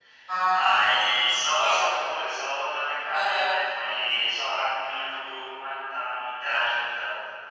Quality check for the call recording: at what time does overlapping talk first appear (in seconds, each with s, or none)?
0.5 s